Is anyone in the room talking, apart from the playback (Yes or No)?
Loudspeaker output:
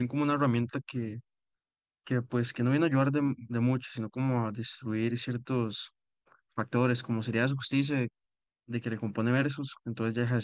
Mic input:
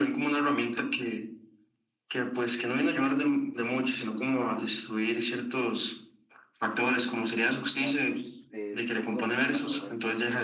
Yes